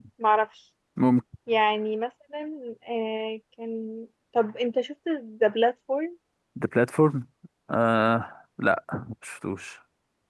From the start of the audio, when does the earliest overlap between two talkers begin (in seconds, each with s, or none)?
none